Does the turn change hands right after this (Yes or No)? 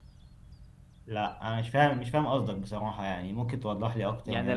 Yes